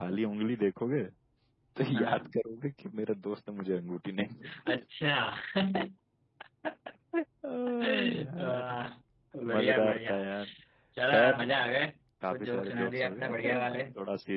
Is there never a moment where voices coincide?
No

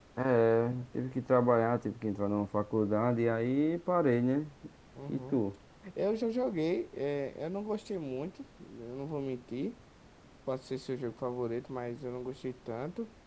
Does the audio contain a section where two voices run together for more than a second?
No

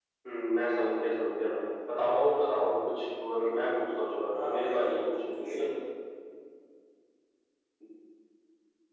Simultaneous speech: Yes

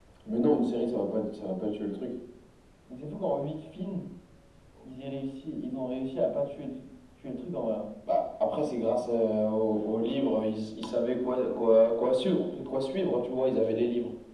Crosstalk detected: No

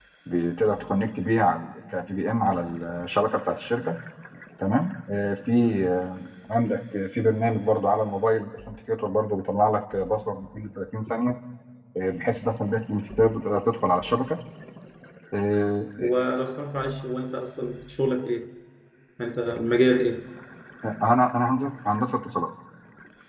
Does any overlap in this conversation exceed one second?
No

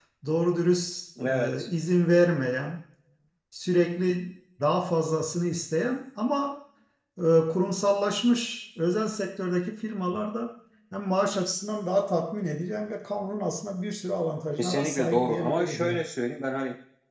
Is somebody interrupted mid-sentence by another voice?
Yes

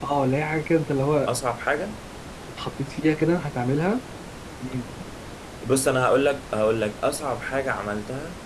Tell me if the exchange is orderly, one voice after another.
Yes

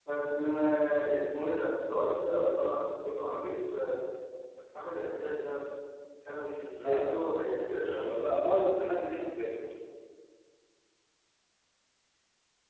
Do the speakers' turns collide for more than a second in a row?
Yes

